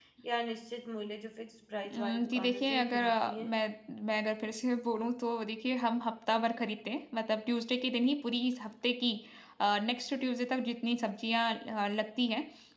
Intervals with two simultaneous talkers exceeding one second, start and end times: 1.9-3.5

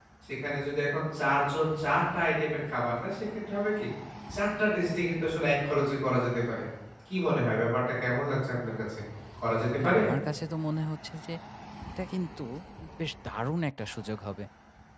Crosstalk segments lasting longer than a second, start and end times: none

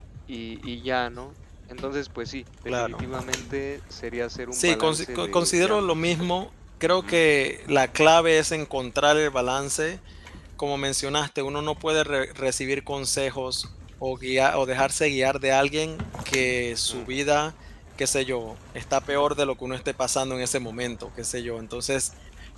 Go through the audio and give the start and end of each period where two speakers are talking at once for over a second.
4.5-6.1

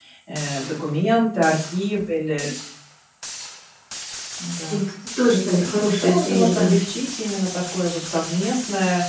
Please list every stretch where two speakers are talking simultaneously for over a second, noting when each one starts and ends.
5.5-6.8

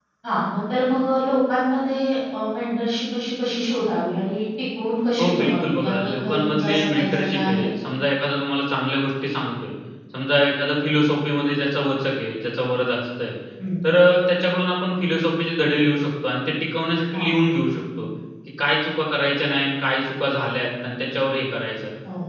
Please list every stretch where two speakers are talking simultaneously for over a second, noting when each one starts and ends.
5.2-7.7

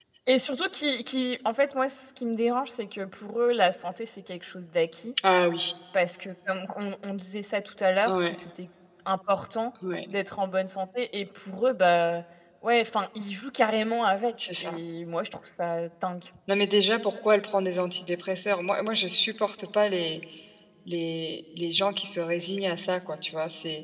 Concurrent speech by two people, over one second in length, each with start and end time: none

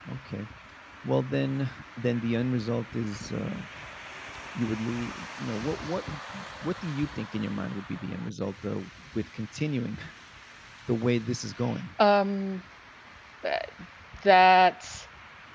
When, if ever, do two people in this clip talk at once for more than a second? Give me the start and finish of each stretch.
none

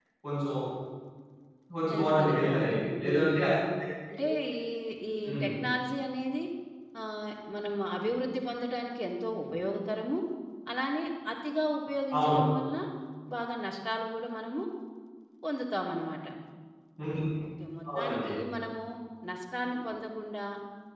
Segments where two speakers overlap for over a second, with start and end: 1.9-3.4

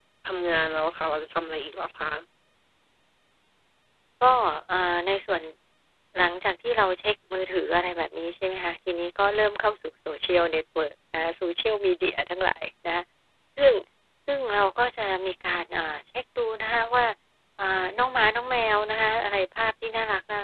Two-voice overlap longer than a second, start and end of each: none

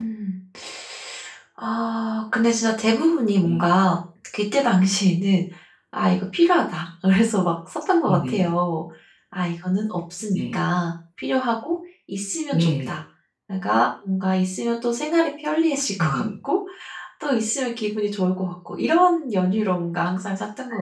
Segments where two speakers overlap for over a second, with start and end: none

